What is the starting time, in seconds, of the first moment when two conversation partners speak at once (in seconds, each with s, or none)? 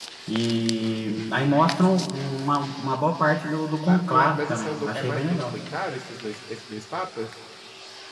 3.9 s